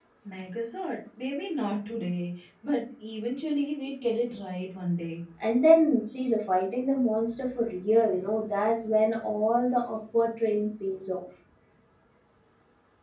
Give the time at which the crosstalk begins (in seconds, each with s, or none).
none